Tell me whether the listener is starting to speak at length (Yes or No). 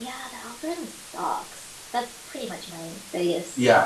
Yes